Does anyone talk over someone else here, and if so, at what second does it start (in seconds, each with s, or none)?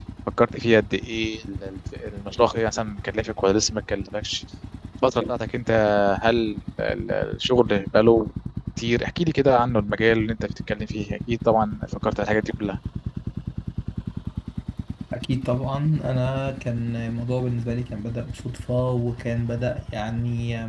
none